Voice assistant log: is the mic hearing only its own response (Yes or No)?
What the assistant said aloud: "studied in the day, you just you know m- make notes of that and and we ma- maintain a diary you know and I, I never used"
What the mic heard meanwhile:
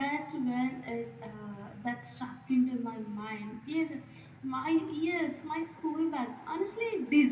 No